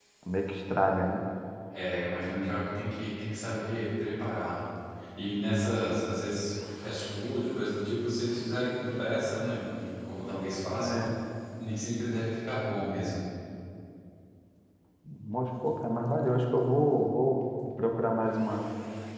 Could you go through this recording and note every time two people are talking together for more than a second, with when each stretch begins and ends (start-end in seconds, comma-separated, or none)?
none